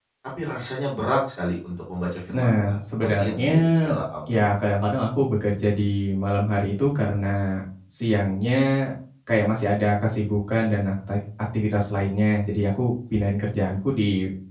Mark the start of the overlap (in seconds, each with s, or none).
2.3 s